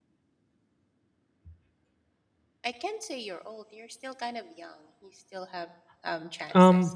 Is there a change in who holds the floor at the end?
Yes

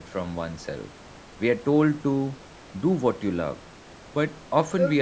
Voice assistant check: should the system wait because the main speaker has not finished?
Yes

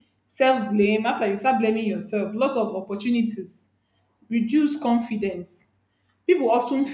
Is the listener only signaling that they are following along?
Yes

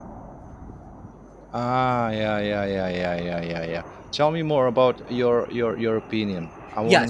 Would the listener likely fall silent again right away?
No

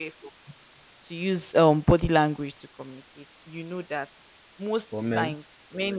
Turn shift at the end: No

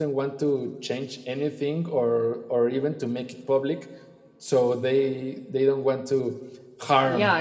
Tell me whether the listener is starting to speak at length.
Yes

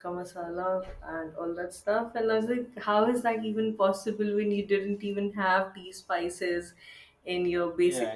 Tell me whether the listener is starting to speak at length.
Yes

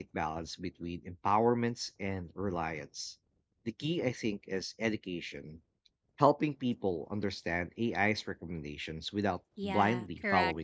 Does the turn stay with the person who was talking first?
No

